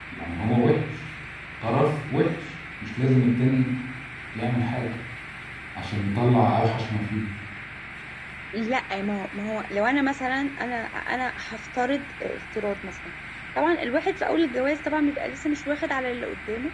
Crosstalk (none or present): none